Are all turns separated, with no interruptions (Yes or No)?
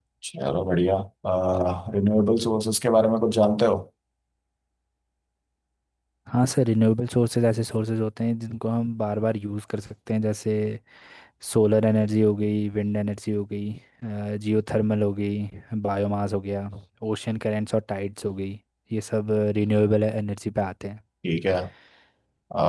Yes